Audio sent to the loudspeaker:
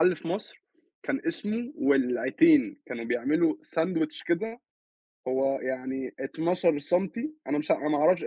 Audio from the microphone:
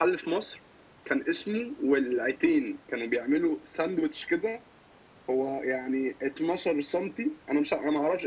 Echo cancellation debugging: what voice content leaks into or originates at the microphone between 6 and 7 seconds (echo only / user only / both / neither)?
echo only